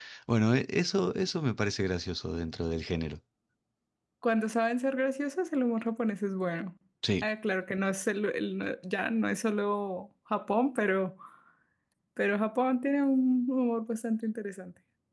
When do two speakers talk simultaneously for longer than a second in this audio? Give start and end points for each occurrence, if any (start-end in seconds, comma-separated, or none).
none